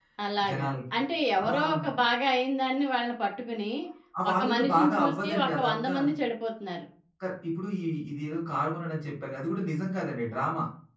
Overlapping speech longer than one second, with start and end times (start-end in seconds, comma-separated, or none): 4.3-5.9